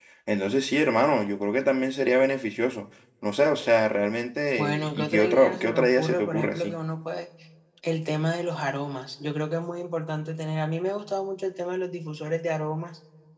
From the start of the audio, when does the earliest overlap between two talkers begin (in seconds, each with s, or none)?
4.6 s